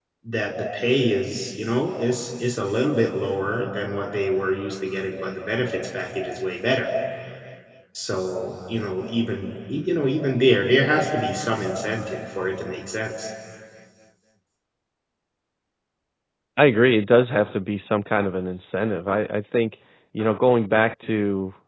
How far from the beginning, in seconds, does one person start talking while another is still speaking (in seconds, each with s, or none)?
none